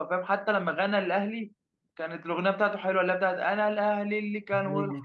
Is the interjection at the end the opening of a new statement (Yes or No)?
No